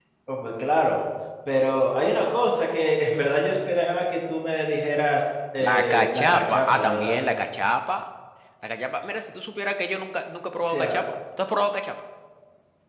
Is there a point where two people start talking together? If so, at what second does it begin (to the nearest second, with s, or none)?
6 s